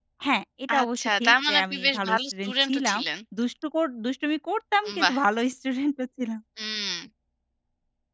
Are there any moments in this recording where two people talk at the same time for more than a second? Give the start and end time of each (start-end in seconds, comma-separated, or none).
0.7-3.0